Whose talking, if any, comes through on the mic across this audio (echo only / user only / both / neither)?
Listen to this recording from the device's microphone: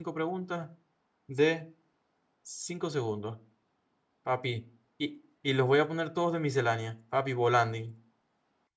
user only